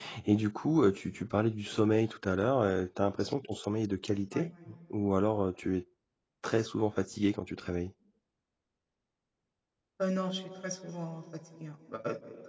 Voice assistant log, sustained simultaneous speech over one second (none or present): none